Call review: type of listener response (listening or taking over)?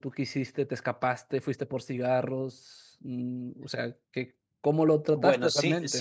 taking over